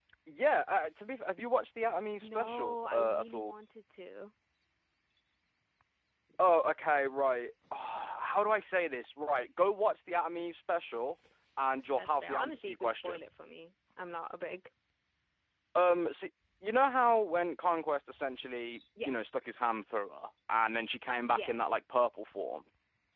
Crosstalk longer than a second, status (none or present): present